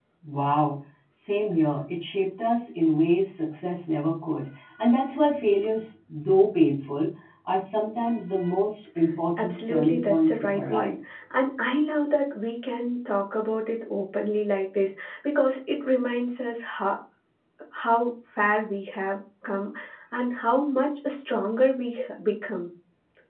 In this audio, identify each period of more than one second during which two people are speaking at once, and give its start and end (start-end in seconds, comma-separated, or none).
9.4-11.2